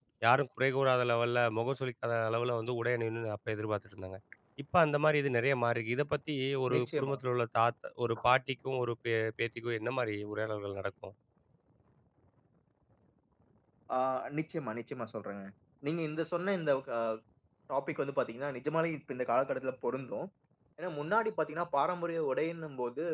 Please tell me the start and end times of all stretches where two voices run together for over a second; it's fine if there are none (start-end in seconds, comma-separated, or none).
none